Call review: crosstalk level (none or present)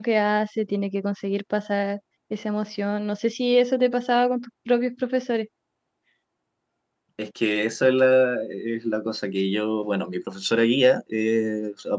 none